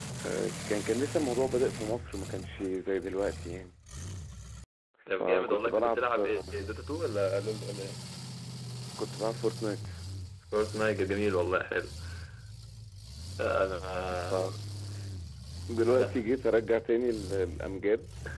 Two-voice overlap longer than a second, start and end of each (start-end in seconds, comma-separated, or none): 5.2-6.6